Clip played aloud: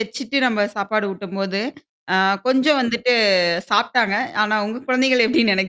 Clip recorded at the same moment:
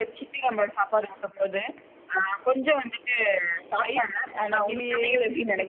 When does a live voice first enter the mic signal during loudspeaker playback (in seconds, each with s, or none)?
3.8 s